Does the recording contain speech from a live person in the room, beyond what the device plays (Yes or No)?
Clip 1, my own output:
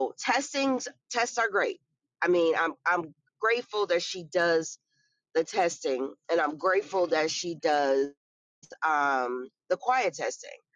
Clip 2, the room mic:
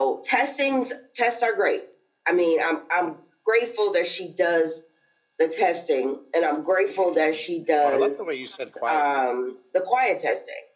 Yes